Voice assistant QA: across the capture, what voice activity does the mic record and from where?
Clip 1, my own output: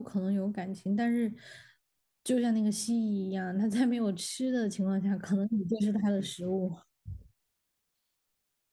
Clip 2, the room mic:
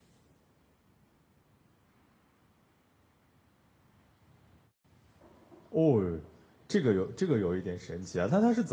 user only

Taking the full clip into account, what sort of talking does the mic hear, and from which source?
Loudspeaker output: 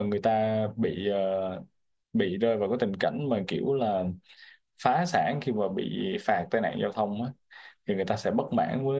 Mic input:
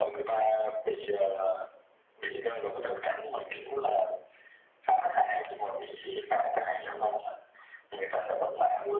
echo only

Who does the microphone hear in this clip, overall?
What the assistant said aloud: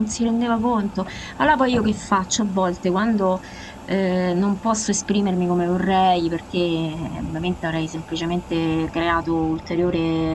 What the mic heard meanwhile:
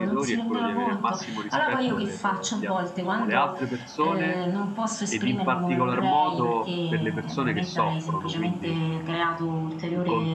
both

